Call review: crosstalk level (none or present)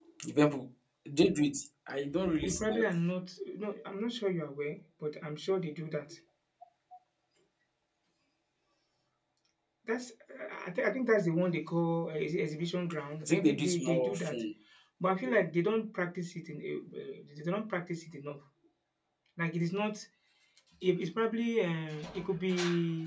present